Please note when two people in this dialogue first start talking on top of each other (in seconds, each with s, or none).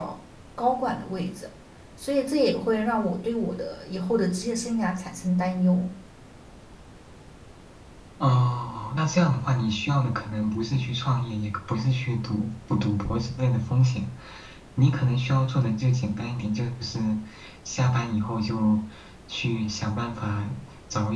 none